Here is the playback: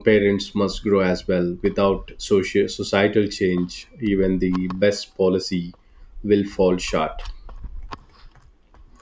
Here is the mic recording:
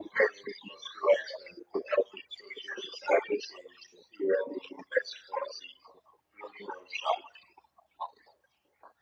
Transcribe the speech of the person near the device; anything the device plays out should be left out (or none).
none